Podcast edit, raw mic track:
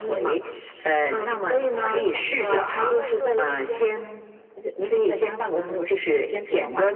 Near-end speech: present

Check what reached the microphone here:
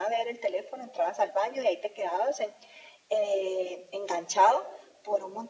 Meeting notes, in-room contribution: none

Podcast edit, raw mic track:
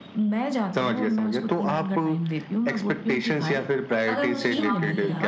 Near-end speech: present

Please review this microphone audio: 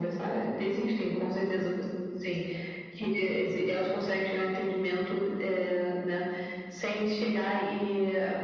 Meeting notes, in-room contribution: none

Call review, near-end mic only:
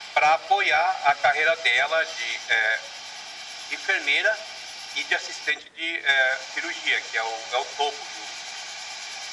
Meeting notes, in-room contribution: none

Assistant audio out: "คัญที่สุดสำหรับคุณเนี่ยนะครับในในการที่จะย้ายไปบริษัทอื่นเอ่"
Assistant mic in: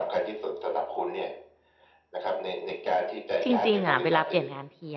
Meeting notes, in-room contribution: present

